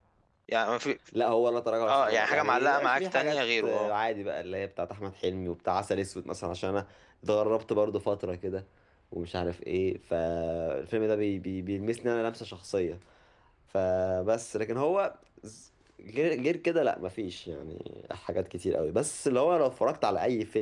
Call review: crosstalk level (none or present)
present